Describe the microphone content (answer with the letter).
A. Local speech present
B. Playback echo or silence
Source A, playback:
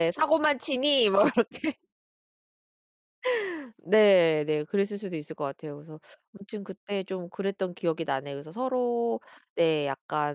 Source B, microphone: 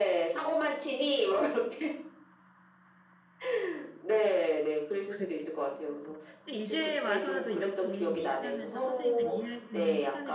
A